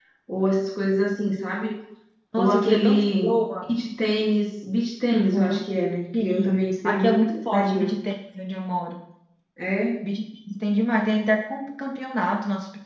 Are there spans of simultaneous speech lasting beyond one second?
Yes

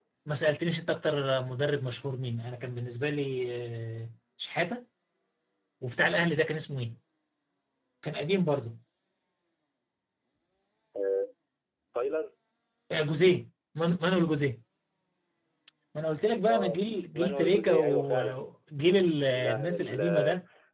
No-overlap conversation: No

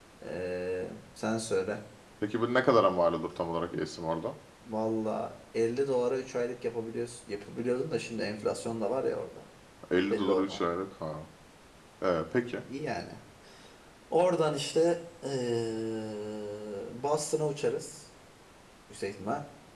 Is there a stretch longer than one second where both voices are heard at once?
No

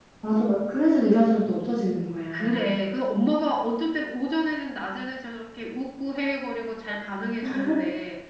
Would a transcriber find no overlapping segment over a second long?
Yes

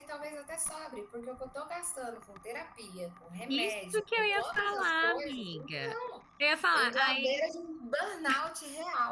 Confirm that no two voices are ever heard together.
No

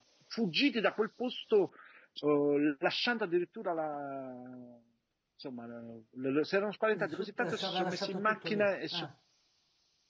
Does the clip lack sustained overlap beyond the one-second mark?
No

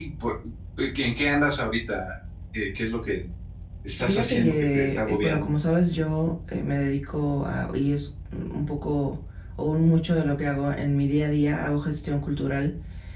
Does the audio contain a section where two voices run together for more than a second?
Yes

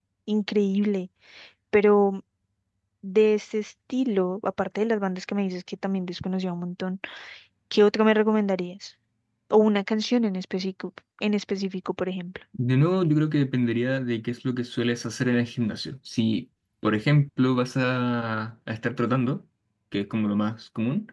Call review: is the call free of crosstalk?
Yes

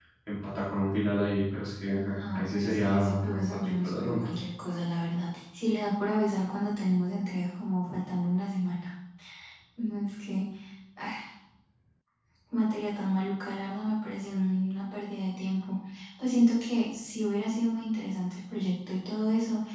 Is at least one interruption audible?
Yes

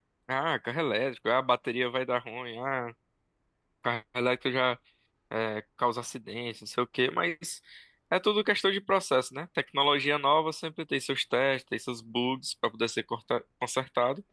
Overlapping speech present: No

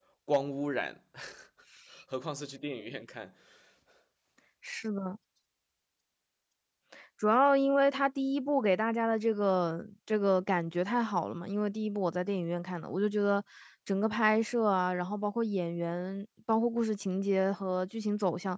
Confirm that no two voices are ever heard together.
Yes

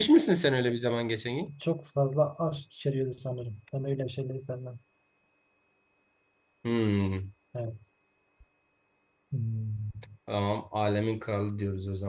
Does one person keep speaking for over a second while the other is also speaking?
No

